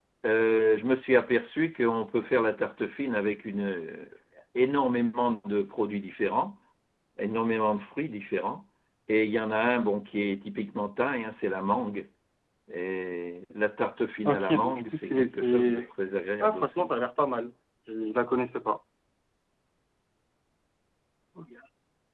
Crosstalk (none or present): present